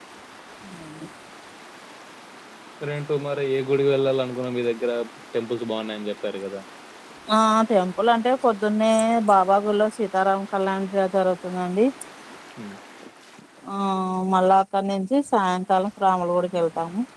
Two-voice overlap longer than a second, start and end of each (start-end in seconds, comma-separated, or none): none